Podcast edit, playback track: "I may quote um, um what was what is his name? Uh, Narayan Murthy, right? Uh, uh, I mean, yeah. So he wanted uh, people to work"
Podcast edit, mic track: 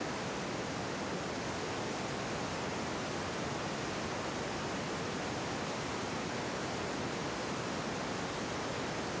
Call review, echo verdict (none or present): none